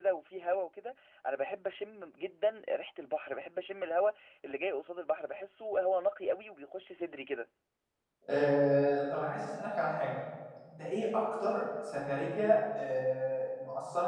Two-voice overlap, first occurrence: none

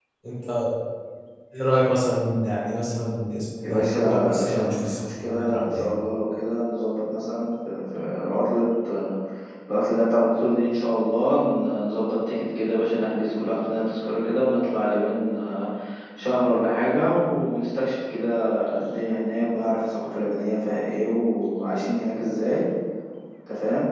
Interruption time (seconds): 3.6 s

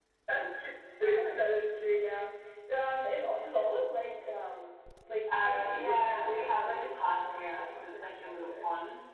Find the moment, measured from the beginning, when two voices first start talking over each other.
5.3 s

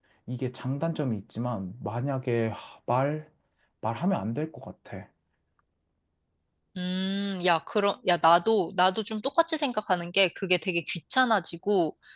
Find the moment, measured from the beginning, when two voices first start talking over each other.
none

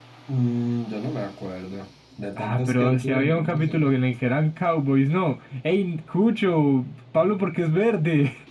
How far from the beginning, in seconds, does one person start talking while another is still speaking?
2.4 s

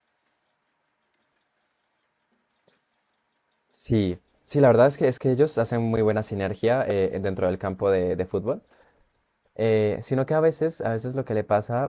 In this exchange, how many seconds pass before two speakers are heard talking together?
none

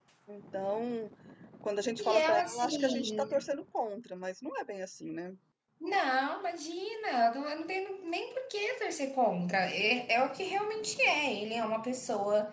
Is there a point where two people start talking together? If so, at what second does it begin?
2.0 s

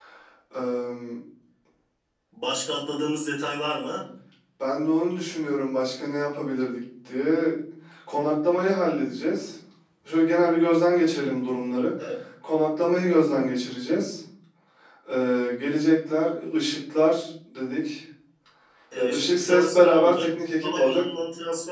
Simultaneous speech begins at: 19.0 s

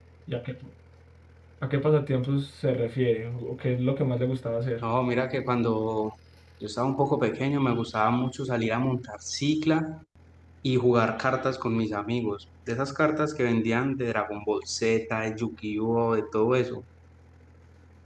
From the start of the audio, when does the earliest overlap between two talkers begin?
none

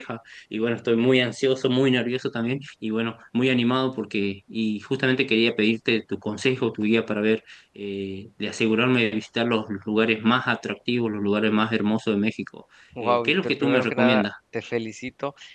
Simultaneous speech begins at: 12.9 s

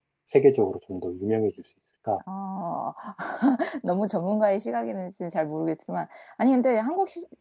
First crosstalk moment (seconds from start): none

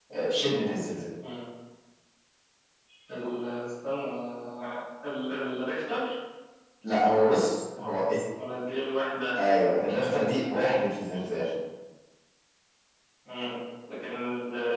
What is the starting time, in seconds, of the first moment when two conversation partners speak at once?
none

